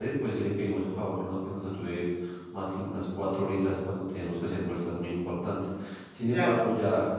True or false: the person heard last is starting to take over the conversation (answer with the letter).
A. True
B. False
B